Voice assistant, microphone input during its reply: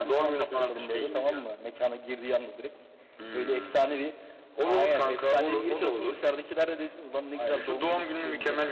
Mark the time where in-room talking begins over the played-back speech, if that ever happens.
none

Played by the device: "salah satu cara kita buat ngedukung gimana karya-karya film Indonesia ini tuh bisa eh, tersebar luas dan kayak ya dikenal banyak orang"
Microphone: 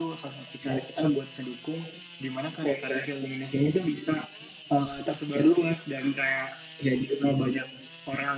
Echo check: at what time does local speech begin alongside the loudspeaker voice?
none

